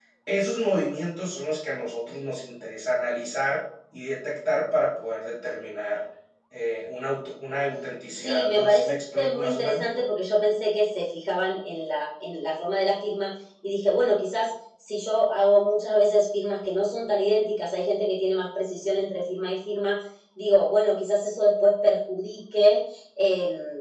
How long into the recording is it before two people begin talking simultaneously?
8.2 s

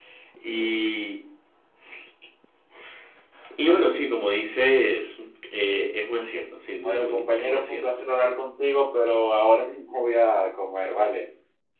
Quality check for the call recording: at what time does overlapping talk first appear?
6.8 s

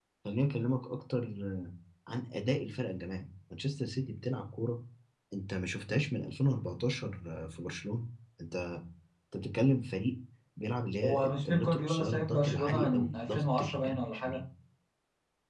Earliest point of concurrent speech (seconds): 11.0 s

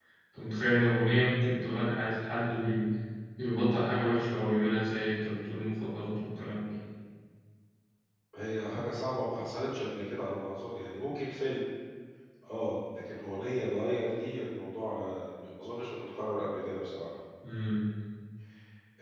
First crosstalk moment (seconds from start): none

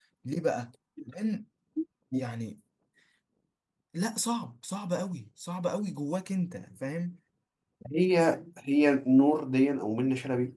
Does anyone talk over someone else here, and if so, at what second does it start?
none

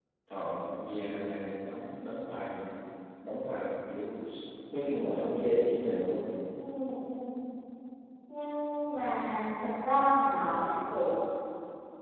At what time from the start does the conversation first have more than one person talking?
none

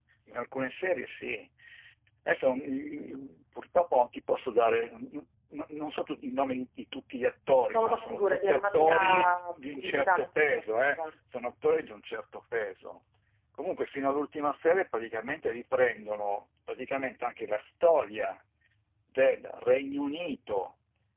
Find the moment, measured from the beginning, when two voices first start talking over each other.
7.7 s

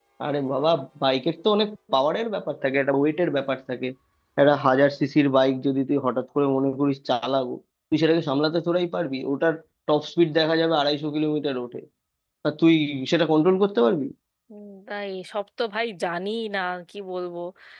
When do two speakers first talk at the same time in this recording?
none

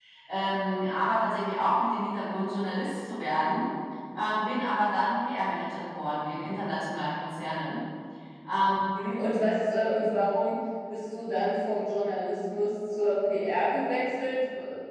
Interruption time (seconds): none

